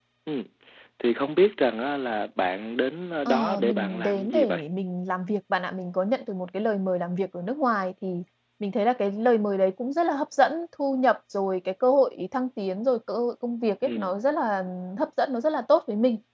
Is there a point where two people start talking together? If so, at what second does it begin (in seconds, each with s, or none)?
3.3 s